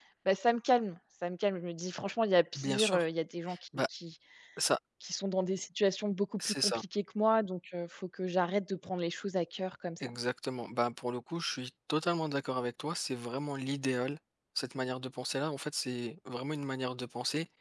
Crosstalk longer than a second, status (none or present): none